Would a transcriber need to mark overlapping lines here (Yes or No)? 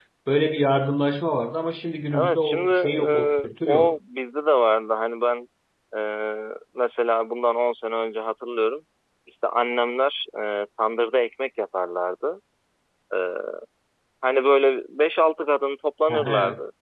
Yes